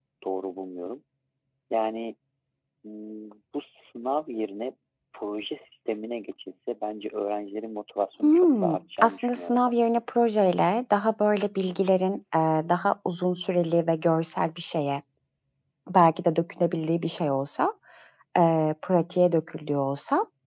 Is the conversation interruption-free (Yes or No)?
No